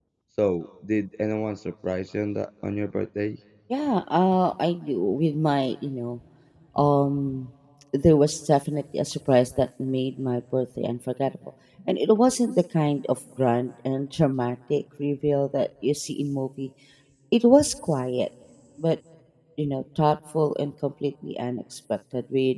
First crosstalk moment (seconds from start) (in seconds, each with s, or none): none